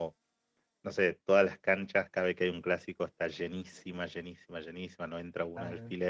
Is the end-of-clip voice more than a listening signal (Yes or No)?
No